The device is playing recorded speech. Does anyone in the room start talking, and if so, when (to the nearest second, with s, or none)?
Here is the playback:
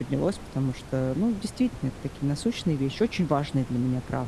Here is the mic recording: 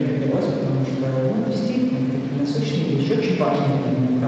none